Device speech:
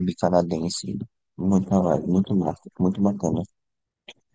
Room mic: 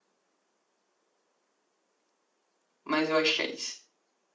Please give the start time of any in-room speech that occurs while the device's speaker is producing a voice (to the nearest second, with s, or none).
3 s